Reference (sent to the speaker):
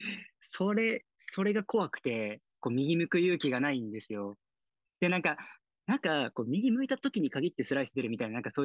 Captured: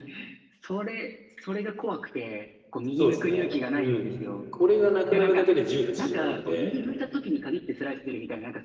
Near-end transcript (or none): そうですね。うん。これがなくなるだけで10で縮まるんで、